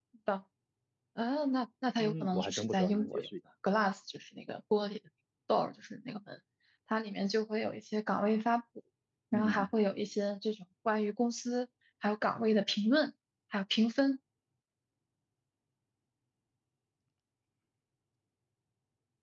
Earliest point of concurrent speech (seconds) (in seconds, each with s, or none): 2.0 s